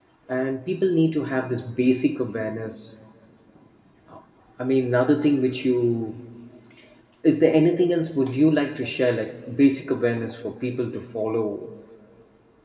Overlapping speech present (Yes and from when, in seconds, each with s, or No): No